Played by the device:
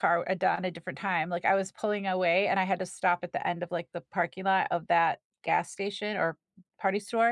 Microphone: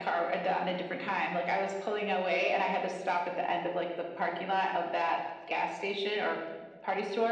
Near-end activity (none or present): none